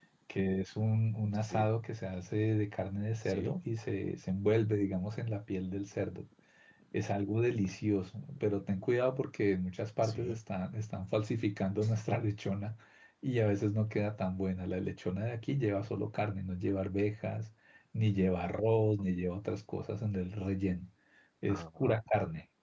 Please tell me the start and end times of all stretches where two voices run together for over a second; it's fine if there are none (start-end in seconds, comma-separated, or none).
none